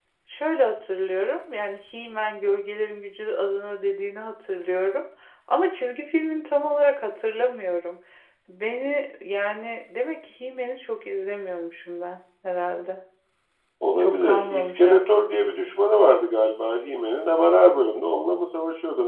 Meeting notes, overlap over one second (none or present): present